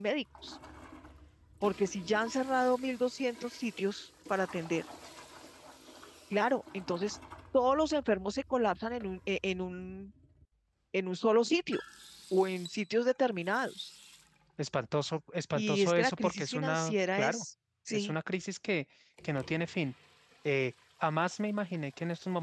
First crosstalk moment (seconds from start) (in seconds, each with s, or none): 15.6 s